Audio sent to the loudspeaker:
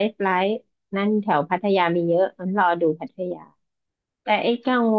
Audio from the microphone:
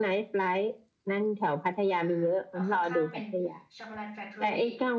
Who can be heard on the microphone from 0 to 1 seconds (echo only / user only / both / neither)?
echo only